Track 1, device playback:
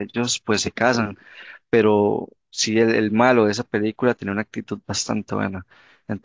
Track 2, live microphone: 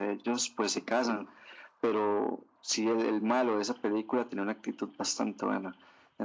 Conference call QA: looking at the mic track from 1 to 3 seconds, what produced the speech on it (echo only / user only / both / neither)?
echo only